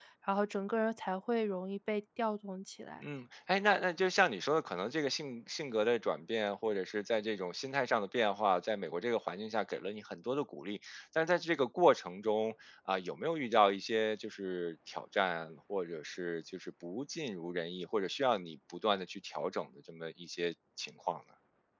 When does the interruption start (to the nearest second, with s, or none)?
none